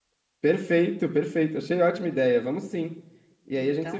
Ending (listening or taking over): listening